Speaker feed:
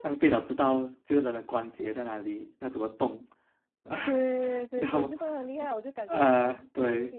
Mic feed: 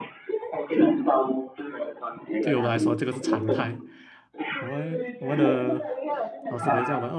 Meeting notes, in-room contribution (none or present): present